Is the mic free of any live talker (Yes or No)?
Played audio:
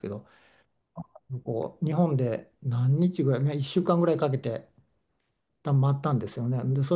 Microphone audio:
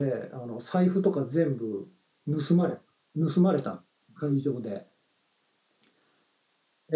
No